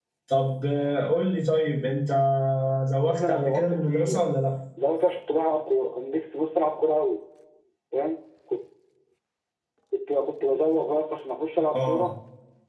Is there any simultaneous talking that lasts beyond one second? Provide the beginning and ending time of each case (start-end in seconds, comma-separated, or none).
3.1-4.3